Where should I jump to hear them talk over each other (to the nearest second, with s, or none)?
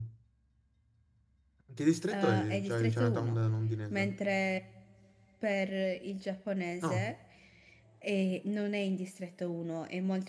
2 s